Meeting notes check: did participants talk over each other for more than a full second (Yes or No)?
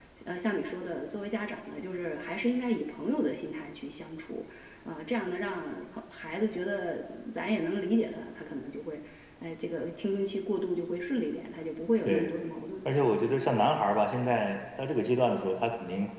No